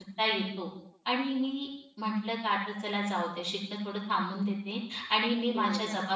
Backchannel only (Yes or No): Yes